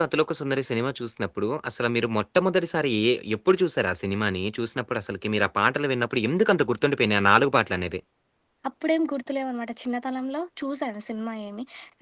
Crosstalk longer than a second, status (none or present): none